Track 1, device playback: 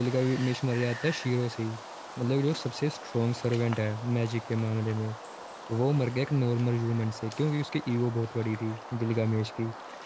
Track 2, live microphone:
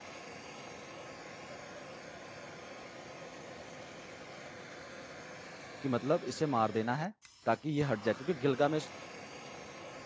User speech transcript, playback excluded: कि मतलब इसे मार देना है ताकि ये हट जाए क्योंकि गिलगामेश

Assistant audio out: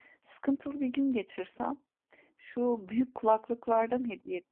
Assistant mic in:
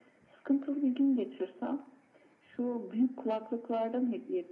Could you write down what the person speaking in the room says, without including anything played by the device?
none

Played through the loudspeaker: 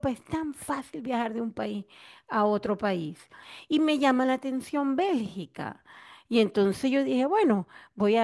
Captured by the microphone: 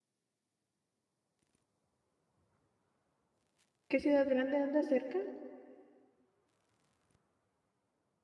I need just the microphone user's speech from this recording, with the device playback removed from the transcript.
qué ciudad grande andas cerca?

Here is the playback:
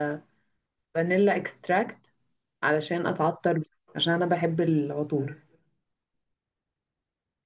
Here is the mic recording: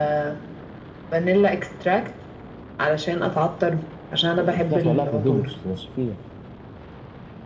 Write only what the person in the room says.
انت كده هتولعها في هدومك مش تمشي فيها

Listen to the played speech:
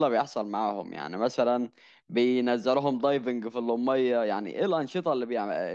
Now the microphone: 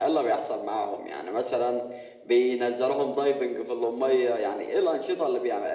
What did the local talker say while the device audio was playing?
none

